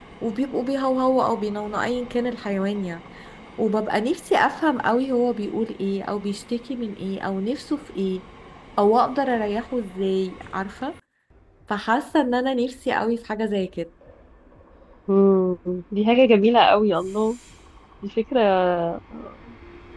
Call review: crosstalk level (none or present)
none